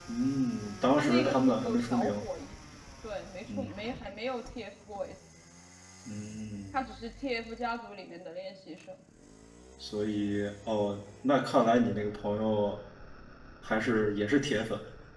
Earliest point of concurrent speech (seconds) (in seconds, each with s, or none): 0.9 s